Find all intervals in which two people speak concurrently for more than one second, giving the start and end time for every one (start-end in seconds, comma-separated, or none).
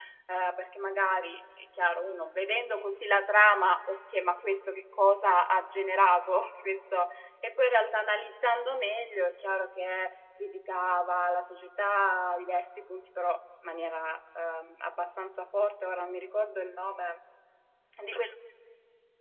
none